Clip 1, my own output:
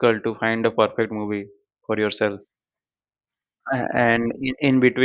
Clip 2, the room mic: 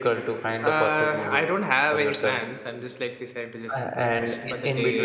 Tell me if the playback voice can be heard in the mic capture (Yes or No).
Yes